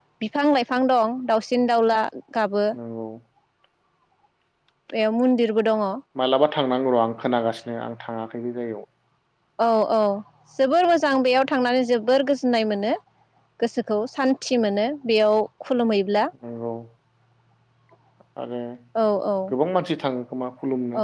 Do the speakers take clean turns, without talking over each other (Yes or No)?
Yes